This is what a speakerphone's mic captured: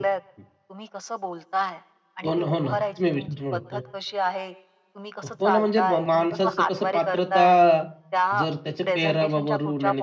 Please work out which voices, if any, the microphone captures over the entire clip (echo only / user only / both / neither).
both